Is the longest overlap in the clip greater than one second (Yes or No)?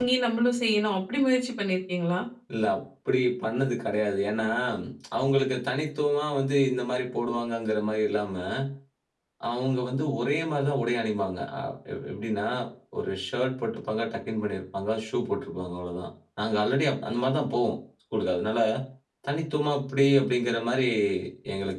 No